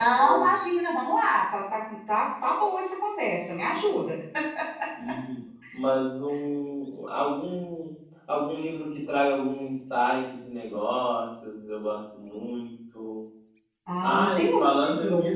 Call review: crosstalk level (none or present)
present